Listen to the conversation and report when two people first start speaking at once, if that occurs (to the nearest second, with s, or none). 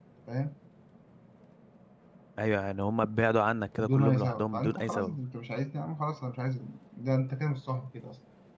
4 s